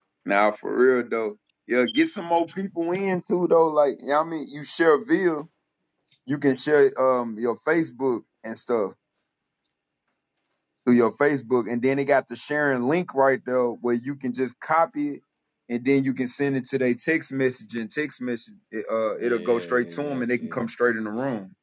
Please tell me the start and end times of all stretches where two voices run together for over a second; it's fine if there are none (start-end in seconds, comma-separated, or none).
19.2-20.7